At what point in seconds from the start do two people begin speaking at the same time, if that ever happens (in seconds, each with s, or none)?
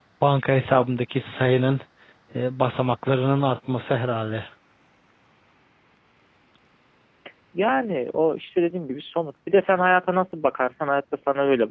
none